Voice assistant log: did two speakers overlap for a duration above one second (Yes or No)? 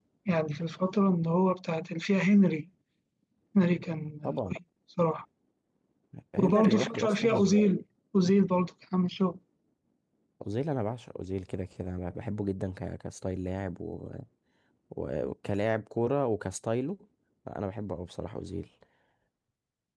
Yes